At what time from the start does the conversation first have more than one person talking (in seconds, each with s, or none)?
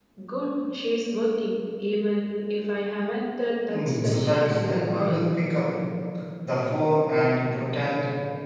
3.7 s